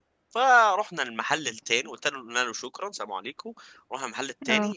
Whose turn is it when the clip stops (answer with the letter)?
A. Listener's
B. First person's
B